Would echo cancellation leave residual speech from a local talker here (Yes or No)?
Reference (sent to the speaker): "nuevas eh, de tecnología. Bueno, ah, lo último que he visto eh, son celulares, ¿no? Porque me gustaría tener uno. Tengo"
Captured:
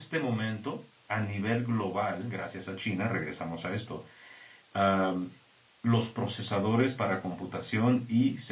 Yes